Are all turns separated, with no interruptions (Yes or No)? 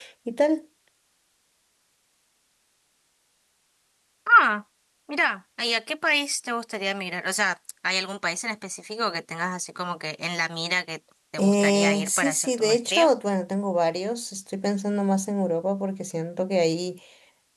No